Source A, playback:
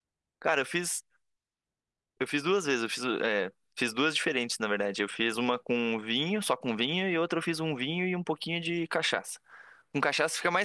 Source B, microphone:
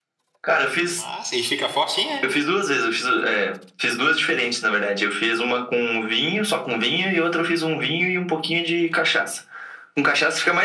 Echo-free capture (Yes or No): No